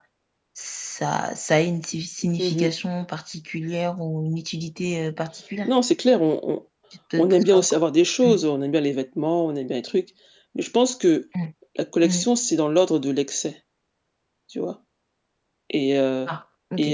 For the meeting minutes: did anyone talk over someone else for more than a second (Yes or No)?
No